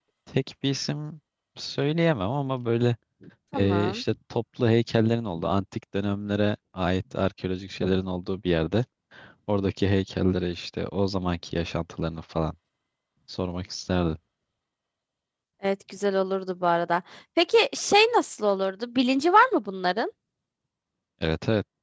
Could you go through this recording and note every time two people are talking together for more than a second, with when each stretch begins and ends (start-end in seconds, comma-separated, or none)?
none